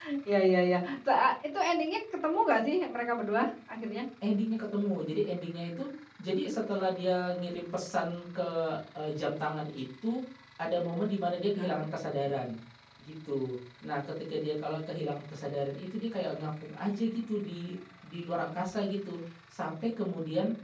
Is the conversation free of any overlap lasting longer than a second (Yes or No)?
Yes